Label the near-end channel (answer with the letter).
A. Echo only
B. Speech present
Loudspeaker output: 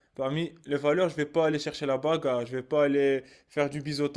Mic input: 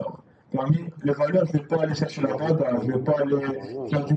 B